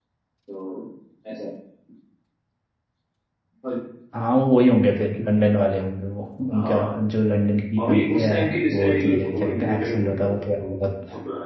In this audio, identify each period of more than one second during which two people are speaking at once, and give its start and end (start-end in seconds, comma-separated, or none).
7.8-10.8